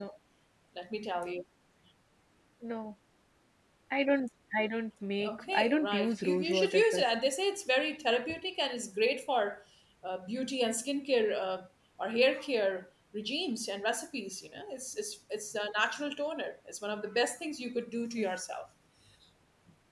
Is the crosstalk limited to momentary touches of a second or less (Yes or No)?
No